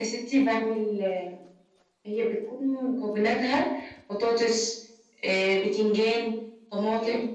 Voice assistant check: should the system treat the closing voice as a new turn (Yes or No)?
No